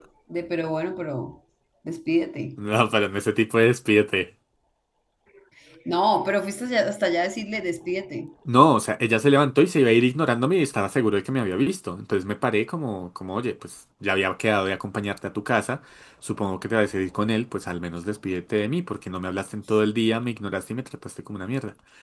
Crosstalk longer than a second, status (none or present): none